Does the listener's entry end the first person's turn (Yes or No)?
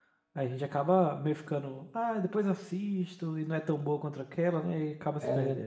Yes